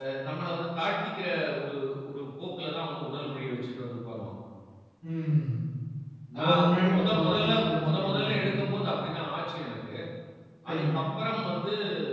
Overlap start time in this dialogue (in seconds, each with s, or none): 6.4 s